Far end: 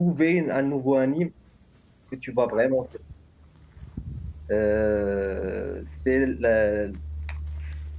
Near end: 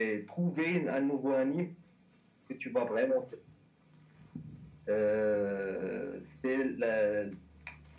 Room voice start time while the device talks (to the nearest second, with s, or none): none